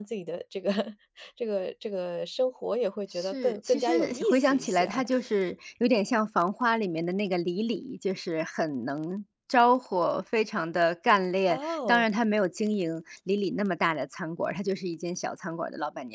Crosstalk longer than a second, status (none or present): present